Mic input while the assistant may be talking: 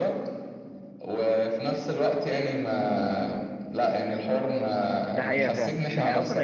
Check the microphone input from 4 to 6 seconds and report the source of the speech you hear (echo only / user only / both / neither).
both